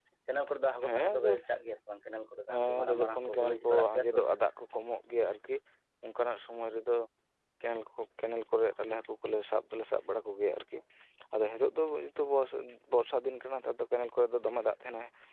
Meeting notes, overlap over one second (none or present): present